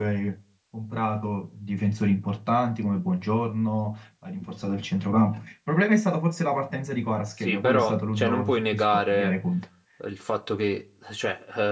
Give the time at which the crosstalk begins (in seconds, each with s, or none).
7.4 s